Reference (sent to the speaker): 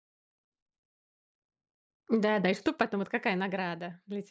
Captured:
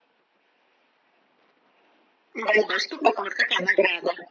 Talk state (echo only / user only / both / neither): echo only